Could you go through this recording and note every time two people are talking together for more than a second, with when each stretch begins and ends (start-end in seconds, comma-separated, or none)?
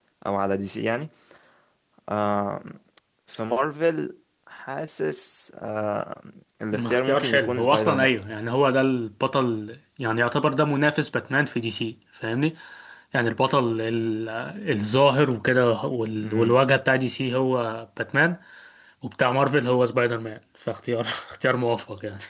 6.7-8.1